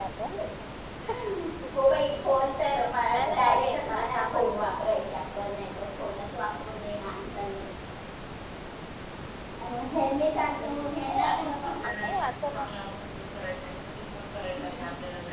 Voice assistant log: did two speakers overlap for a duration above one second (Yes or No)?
Yes